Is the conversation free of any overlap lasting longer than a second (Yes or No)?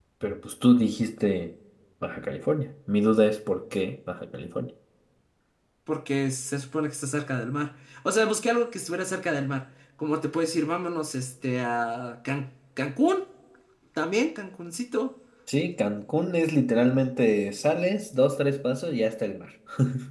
Yes